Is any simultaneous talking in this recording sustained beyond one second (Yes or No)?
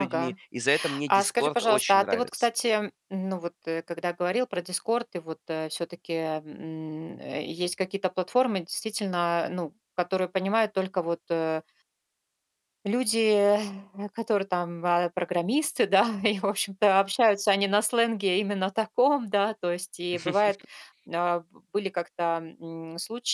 Yes